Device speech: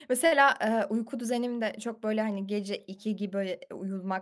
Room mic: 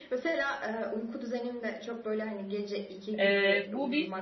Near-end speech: present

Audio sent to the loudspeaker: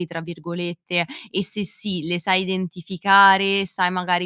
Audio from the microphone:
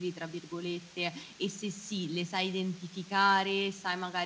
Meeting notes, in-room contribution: none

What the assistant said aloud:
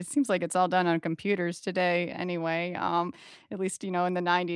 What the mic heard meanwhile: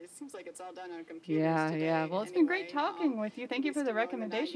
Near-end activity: present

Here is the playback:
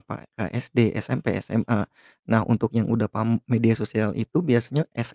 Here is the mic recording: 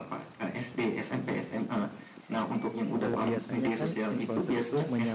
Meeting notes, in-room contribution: present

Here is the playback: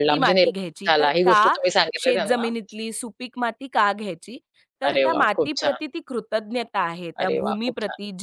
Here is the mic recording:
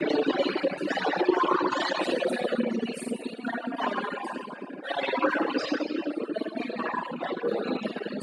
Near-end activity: none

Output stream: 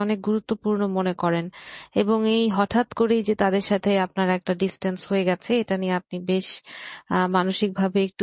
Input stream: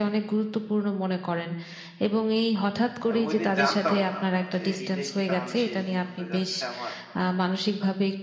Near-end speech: present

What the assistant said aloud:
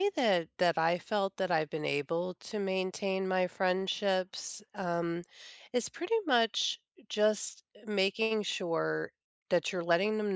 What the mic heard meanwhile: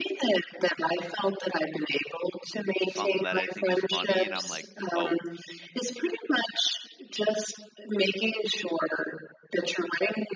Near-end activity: present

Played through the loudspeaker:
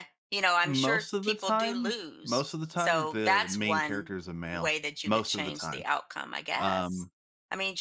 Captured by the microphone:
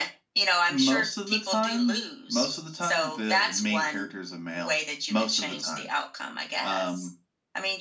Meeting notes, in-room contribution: none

